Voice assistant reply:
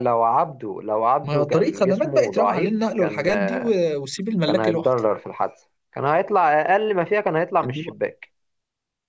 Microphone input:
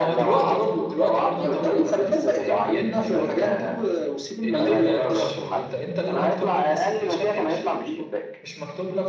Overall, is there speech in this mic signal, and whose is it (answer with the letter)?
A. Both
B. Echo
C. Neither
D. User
A